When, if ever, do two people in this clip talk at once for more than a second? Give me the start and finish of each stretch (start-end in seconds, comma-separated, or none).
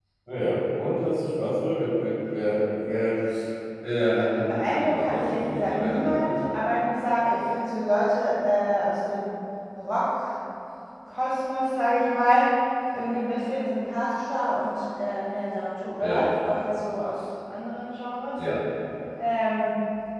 4.5-6.5